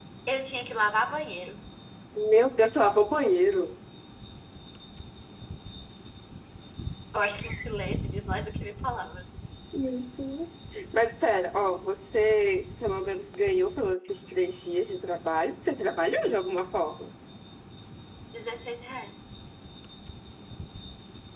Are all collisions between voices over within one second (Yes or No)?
Yes